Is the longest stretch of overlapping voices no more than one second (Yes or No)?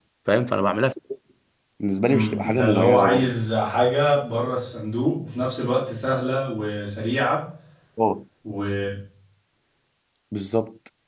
No